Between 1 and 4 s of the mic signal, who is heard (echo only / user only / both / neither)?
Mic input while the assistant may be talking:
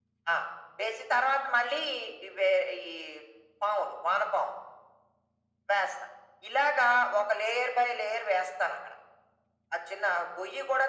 echo only